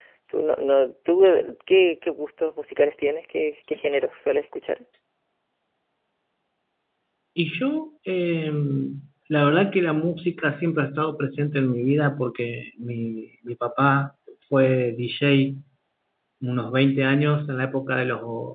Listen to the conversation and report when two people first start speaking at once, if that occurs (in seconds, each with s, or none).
none